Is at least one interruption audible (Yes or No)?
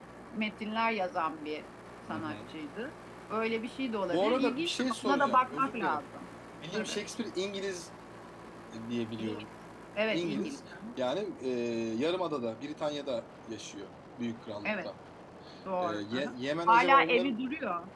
Yes